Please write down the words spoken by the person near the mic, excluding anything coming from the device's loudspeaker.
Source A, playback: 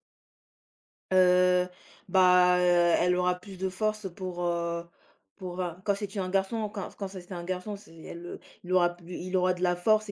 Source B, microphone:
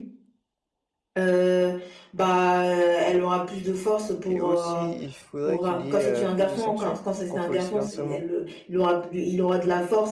et aussi, il faudrait qu'il y ait, heu, plus de sanctions contre le cyberharcèlement

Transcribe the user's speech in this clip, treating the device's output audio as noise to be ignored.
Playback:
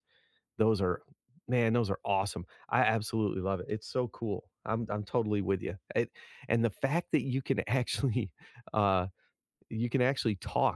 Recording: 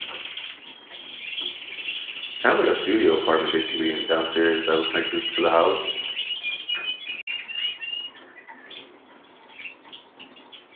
kinda like a studio apartment basically and downstairs that was connected to the house,

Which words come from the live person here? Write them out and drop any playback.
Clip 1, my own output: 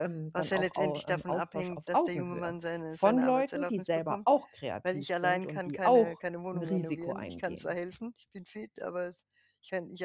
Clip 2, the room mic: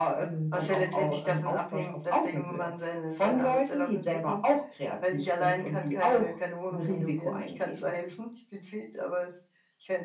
none

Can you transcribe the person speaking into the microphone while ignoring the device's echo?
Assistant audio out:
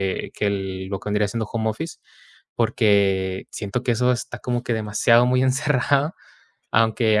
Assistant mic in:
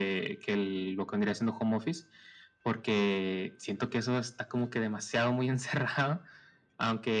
none

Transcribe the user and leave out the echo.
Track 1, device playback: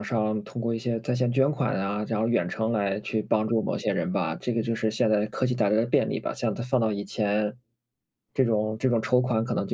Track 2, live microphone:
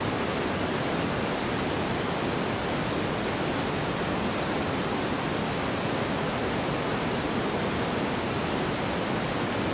none

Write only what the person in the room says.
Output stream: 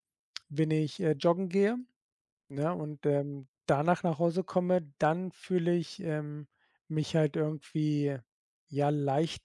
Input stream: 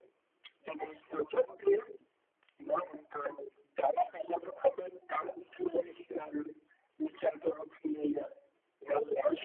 none

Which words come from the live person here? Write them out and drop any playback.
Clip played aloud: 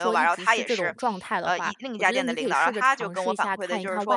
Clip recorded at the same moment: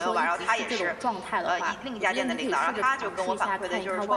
none

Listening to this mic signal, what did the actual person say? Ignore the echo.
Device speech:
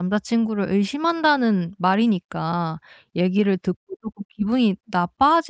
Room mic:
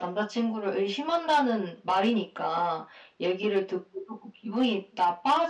none

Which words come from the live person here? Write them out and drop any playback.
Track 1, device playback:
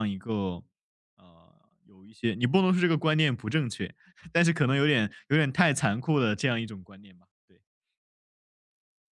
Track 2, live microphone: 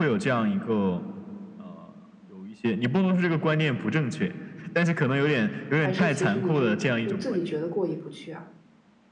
还是其实你是就自己觉得过意不去啊？

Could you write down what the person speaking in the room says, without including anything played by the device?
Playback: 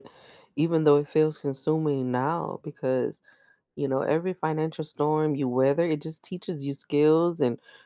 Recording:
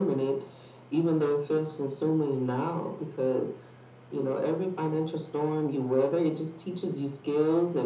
none

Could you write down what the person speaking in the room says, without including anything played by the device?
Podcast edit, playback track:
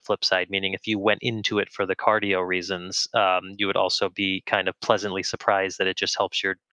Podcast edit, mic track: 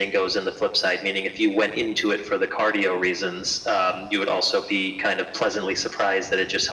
none

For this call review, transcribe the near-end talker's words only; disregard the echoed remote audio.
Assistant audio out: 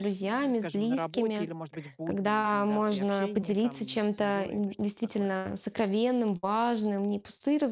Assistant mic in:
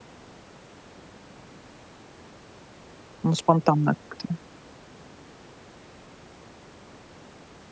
Ну, спонтанно как-то.

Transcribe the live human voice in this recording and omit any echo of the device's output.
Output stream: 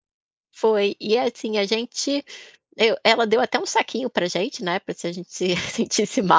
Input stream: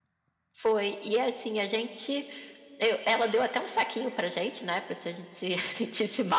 none

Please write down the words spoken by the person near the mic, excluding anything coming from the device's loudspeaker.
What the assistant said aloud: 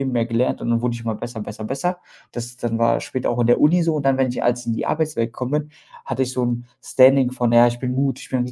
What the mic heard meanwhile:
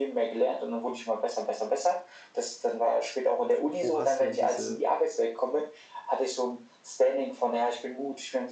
W wo hast du denn diese

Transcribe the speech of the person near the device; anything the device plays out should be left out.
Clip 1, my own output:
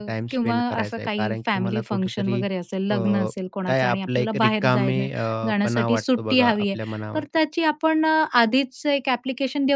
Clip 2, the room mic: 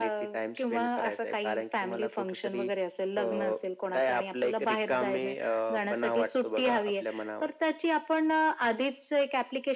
none

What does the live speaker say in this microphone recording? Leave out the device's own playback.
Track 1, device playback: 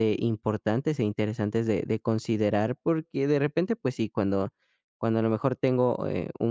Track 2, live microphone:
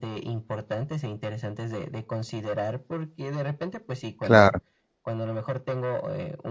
claro.

